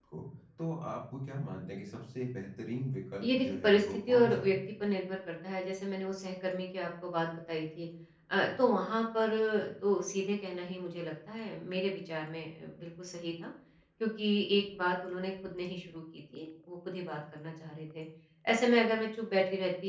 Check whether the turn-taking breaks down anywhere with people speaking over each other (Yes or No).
Yes